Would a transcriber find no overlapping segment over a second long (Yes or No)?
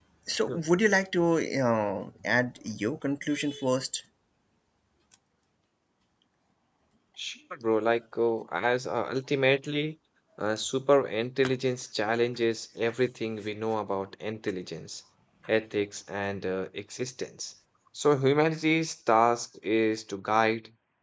Yes